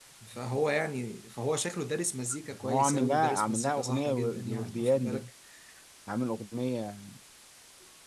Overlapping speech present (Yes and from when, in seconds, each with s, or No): Yes, from 2.4 s